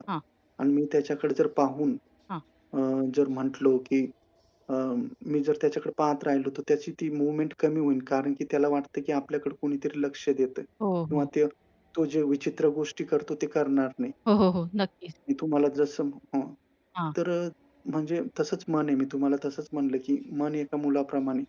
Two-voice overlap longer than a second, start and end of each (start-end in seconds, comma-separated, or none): none